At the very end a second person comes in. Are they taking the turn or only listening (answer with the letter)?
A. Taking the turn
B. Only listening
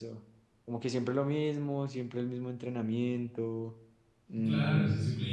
A